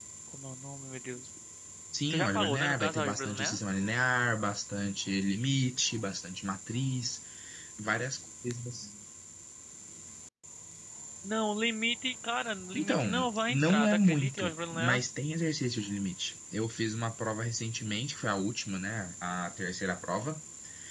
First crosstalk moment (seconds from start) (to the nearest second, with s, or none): 2 s